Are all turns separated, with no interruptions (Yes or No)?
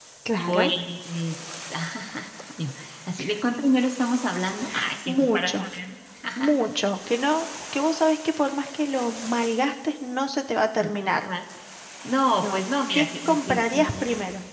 No